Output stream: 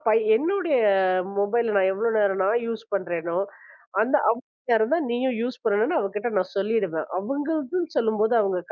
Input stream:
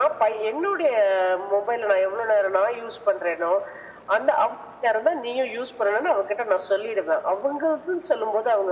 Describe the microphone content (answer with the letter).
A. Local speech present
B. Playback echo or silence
B